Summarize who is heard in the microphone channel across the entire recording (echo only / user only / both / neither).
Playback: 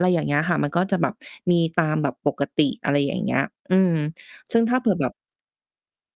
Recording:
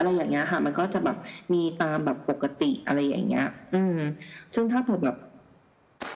echo only